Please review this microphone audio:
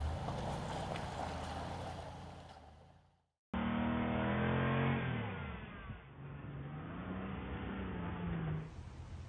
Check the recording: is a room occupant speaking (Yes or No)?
No